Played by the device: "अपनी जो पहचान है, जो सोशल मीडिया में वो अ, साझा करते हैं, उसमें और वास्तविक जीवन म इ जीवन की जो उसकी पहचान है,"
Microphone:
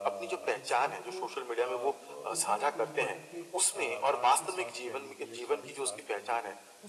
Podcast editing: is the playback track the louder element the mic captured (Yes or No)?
Yes